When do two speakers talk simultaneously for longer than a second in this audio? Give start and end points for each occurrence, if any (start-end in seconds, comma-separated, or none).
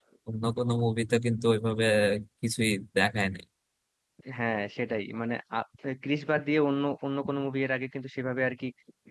none